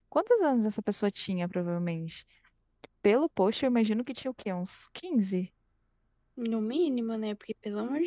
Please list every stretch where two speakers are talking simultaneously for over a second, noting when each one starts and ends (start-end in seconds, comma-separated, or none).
none